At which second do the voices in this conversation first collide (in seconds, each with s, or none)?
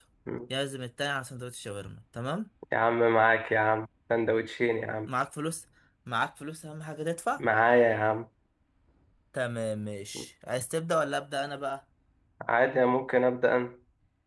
none